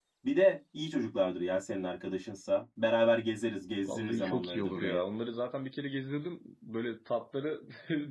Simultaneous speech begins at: 3.8 s

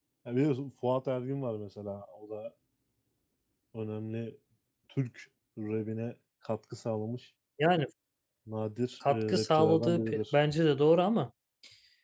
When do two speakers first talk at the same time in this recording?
9.1 s

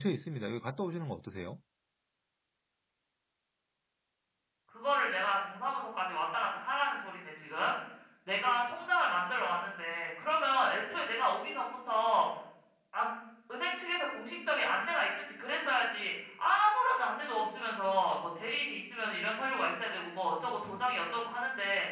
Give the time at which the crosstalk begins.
none

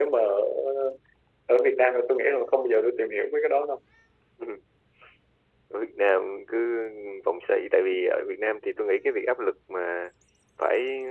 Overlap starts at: none

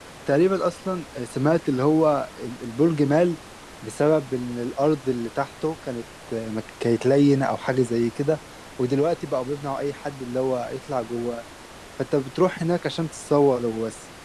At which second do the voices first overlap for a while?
none

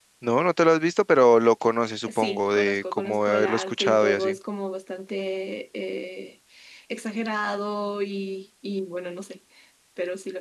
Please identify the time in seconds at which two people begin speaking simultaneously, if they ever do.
2.1 s

